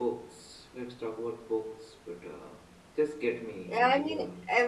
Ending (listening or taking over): taking over